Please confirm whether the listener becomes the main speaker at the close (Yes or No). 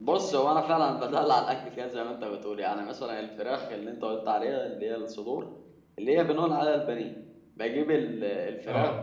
No